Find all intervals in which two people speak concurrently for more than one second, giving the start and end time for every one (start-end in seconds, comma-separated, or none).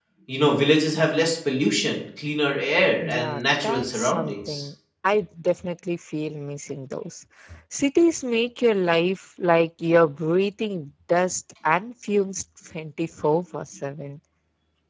3.0-4.7